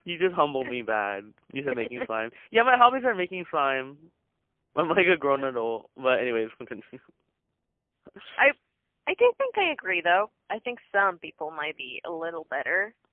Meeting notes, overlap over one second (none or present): none